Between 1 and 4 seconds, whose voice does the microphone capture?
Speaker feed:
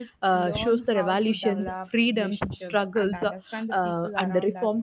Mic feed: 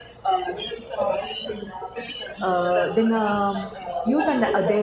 both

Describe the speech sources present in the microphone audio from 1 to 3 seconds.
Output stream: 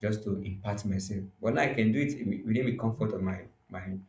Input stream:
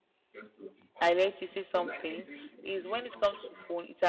both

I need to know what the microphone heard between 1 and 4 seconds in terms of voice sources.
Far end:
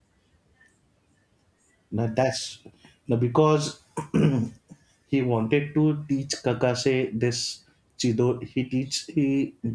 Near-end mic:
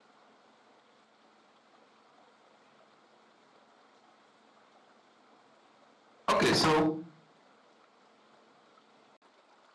neither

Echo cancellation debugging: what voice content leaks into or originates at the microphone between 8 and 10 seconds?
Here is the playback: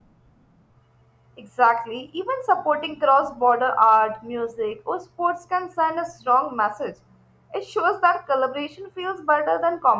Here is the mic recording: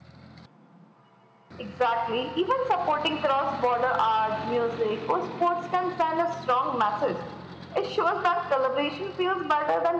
echo only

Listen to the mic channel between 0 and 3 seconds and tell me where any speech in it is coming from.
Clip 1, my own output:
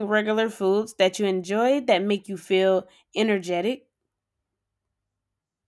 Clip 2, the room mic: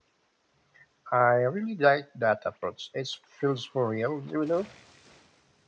user only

